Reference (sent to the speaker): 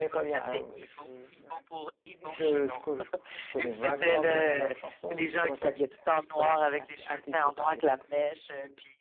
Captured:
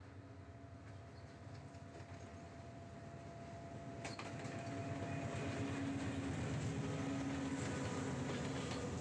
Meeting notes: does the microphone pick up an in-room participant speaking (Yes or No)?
No